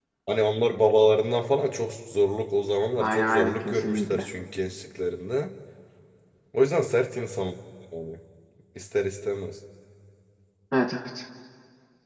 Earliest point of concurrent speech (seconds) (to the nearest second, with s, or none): 3 s